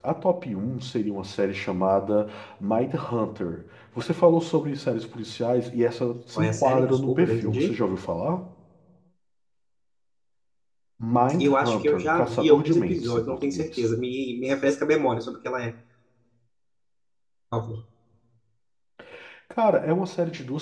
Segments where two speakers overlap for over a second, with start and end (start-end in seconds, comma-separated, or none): 6.4-7.8, 11.4-13.8